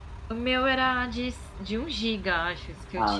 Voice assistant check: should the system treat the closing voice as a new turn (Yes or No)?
Yes